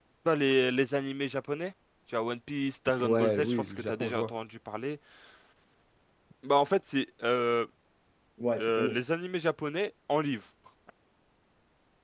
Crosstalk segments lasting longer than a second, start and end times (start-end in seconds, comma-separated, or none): 3.0-4.3